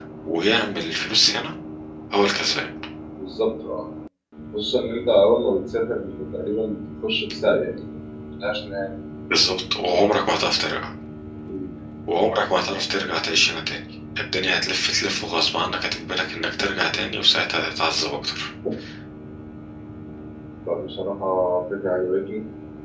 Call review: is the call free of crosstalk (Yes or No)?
Yes